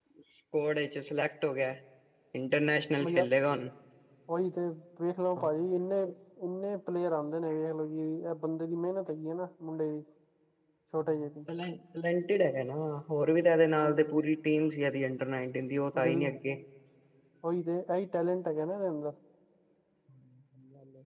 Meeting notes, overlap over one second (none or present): none